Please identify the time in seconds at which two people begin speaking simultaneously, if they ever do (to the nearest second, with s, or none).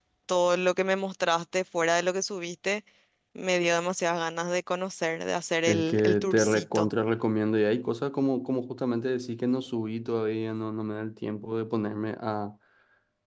6 s